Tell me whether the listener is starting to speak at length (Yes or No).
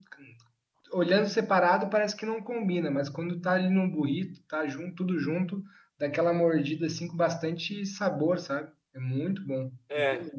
Yes